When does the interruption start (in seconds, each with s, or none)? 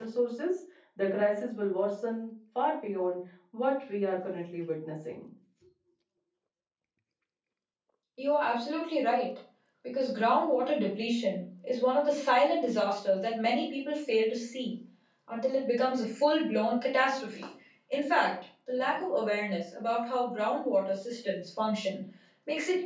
none